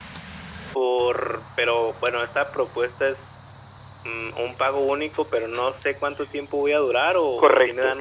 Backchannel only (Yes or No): No